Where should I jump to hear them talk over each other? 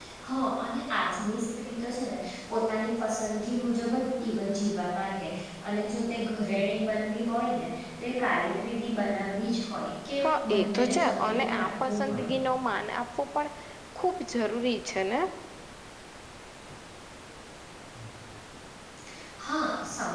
10.2 s

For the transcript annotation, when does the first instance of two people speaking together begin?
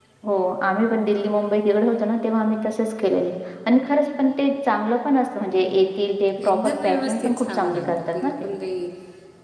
6.4 s

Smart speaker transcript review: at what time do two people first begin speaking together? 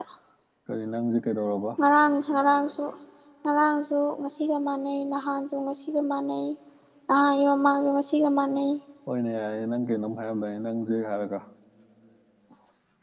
none

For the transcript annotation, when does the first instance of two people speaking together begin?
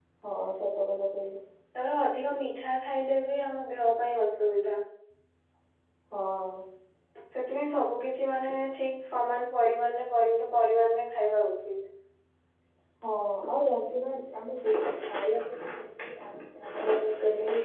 none

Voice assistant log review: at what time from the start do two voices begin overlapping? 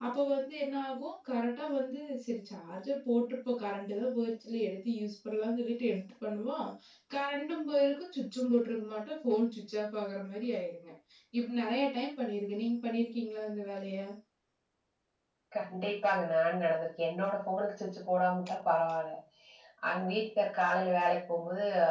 none

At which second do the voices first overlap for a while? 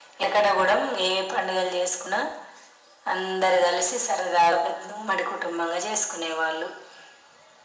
none

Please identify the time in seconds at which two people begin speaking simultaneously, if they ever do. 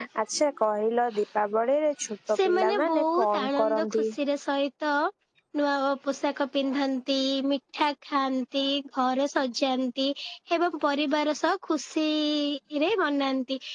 2.3 s

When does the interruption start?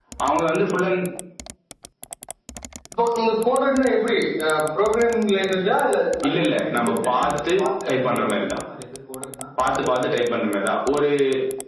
6.2 s

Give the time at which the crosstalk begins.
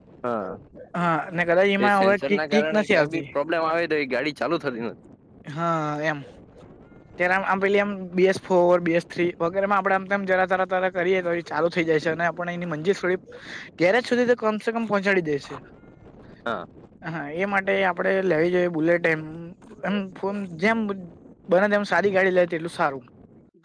1.8 s

